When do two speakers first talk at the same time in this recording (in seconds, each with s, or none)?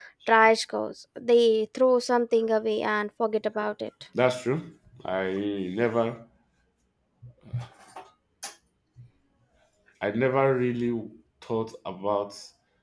none